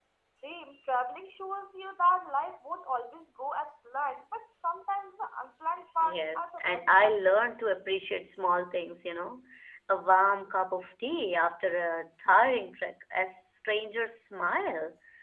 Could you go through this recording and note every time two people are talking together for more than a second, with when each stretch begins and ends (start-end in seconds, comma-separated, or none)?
6.0-7.4